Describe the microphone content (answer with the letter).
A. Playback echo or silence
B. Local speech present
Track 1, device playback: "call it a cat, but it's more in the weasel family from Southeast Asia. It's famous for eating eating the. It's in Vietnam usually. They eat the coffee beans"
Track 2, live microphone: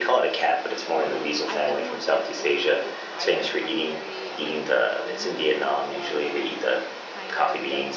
B